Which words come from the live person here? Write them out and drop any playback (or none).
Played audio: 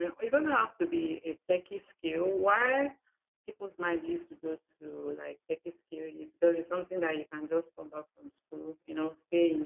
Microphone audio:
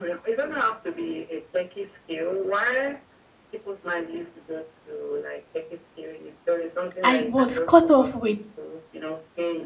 i was cut off with